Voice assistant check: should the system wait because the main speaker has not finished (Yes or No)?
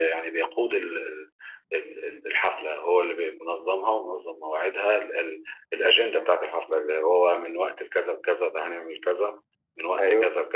No